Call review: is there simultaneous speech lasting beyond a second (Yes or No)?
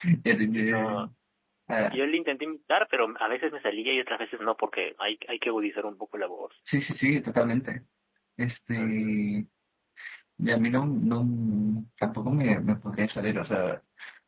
No